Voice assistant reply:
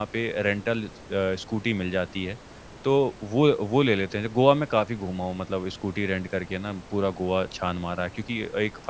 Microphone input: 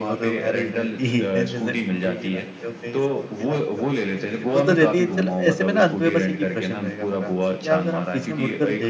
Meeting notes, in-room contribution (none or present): present